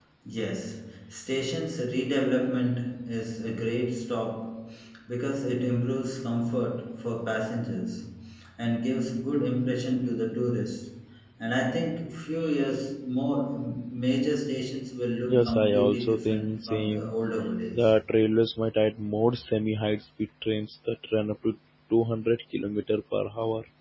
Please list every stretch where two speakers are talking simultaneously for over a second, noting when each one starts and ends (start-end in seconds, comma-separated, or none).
15.2-17.1